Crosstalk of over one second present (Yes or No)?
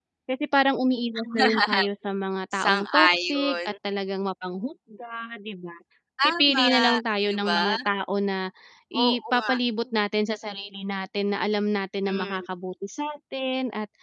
Yes